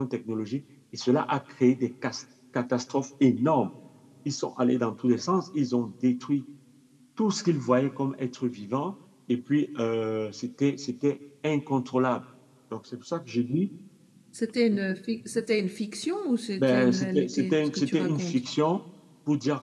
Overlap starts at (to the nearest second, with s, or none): 17 s